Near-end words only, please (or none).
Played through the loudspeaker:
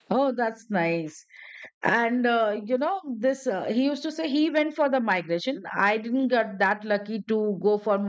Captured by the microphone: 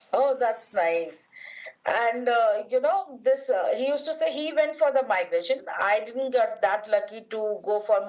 none